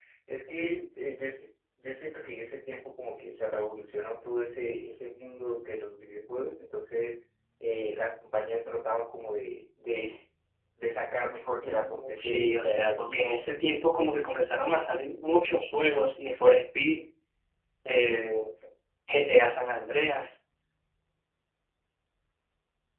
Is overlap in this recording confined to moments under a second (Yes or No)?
No